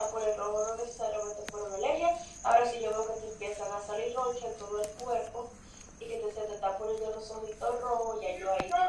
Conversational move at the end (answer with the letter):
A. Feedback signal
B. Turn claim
B